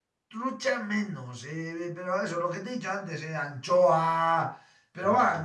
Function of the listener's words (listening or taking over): listening